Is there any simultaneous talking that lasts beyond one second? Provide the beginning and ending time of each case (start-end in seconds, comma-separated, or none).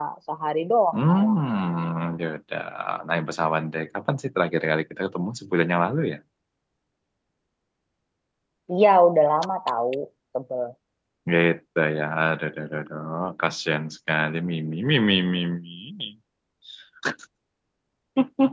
none